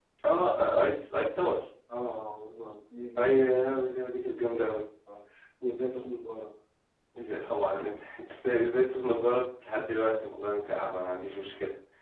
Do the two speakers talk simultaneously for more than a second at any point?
No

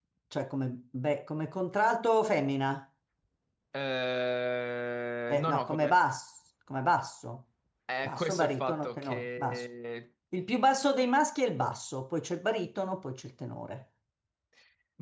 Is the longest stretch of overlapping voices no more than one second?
No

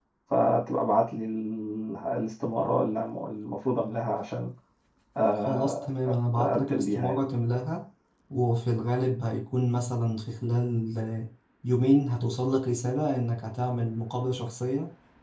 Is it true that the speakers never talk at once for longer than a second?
No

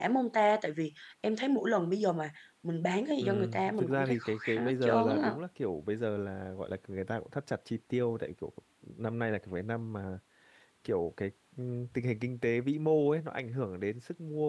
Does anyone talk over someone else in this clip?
Yes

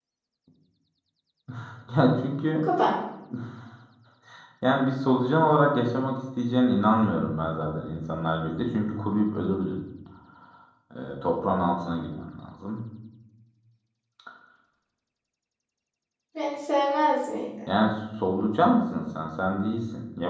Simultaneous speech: No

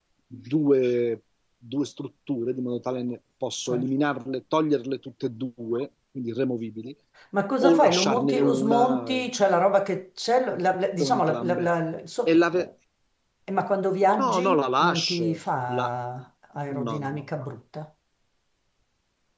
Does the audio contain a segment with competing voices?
Yes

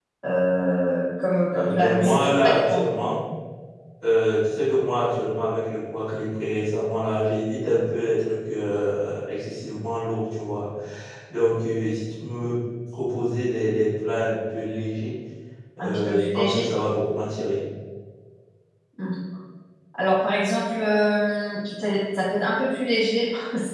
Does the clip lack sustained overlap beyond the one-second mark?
No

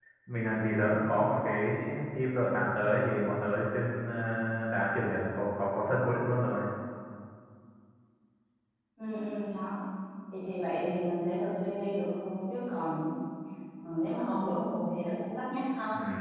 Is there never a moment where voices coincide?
Yes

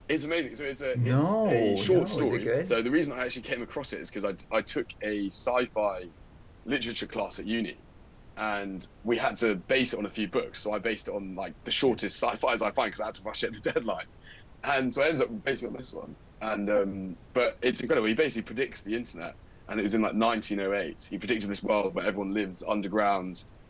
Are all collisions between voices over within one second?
No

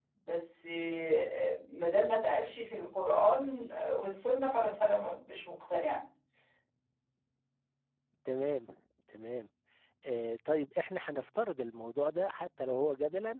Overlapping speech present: No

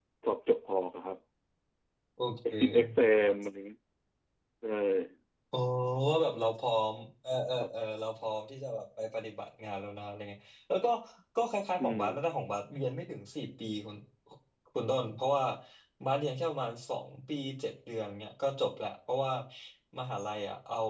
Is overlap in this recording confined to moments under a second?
Yes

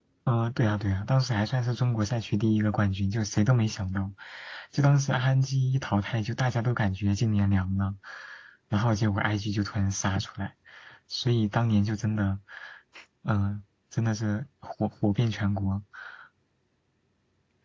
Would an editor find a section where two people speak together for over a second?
No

